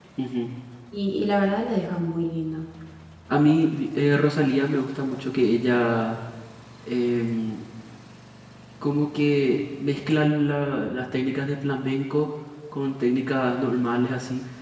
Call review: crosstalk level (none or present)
none